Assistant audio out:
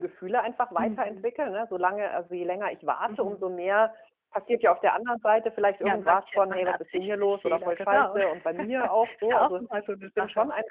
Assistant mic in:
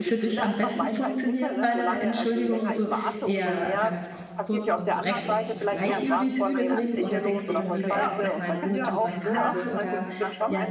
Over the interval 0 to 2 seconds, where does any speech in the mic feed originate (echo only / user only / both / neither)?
both